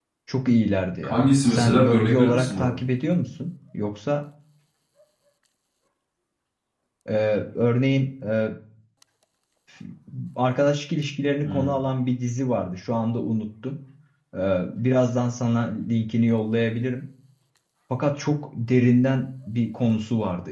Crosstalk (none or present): present